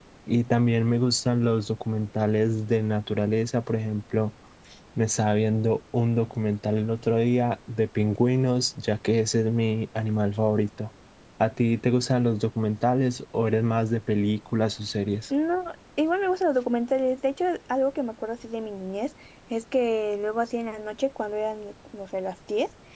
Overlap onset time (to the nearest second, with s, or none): none